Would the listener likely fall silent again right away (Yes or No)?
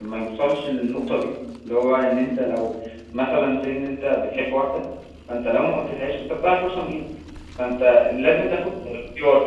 Yes